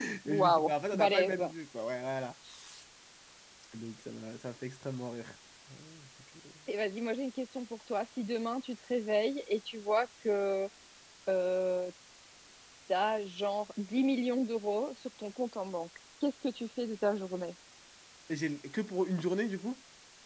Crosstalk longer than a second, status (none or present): present